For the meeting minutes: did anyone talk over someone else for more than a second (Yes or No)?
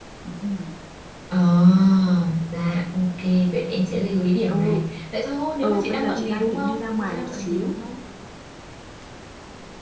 Yes